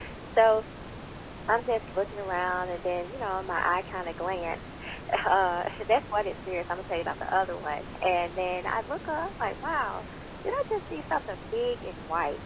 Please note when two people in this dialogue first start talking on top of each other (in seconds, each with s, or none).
none